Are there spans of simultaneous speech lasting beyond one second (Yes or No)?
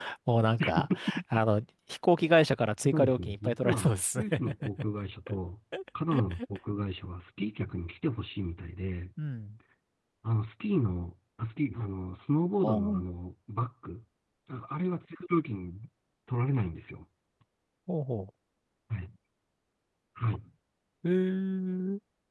Yes